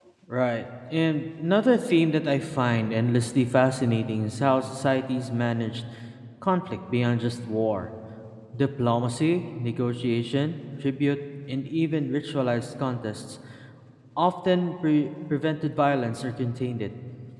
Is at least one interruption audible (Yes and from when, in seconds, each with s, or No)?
No